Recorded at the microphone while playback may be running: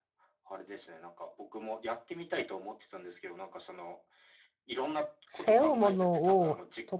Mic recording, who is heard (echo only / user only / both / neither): both